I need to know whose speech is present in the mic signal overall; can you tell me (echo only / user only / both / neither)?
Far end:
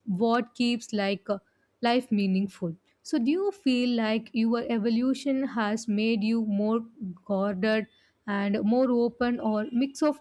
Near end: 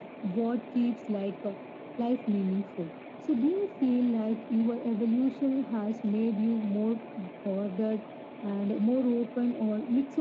echo only